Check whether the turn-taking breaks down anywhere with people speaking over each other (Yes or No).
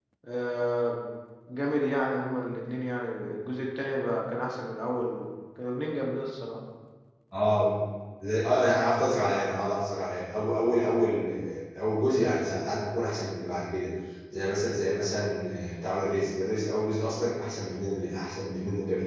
No